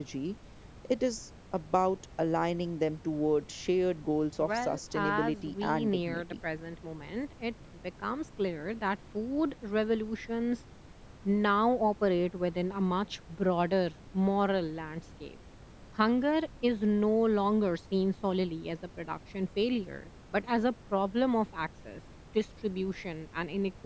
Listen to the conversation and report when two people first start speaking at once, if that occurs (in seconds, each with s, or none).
4.4 s